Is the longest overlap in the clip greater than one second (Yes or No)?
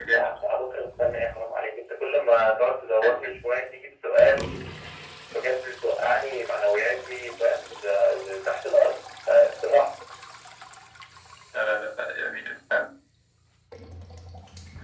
No